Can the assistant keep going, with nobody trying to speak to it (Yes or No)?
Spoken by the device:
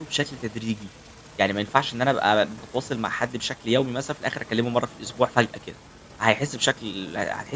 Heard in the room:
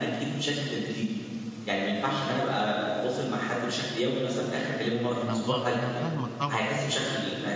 No